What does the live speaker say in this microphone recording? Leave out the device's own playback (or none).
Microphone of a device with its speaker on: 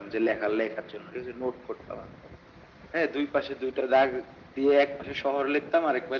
none